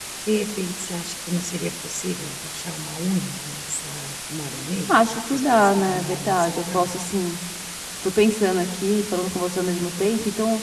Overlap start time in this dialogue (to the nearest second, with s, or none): 5 s